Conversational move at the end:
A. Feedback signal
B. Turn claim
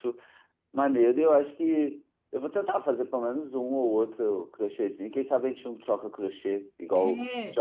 B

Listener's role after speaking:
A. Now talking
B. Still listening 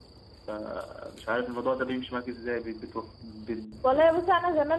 A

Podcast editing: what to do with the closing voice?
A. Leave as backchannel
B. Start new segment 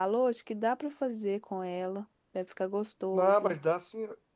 B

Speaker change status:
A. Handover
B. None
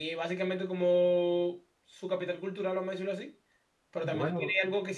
B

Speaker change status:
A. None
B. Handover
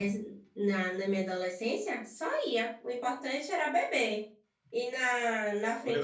B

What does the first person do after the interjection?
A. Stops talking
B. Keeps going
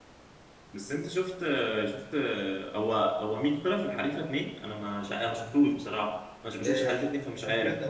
A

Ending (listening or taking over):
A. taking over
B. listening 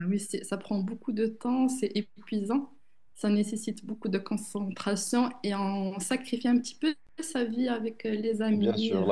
A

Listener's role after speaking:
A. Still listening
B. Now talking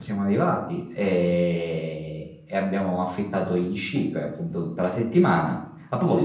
B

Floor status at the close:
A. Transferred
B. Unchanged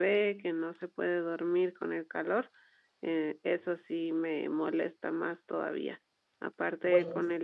B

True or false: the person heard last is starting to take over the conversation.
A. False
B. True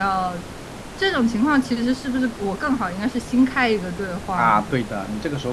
B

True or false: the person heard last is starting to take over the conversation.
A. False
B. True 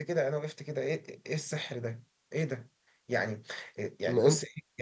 A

